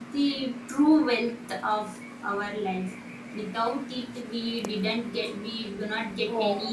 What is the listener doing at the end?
taking over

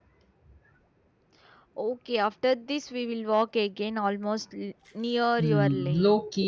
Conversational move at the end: taking over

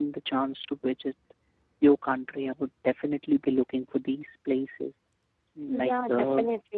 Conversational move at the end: taking over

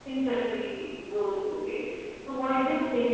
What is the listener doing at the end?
listening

